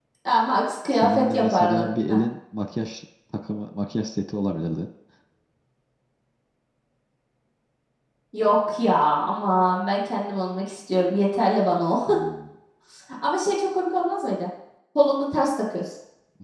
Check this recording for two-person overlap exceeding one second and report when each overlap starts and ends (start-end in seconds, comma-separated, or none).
0.9-2.2